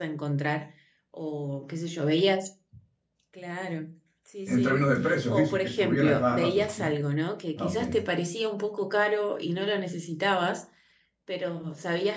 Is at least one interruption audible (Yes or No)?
Yes